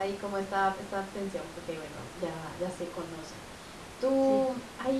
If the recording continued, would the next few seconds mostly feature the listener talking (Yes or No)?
No